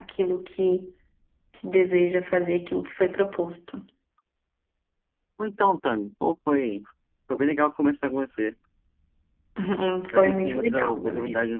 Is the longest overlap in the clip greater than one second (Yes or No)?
Yes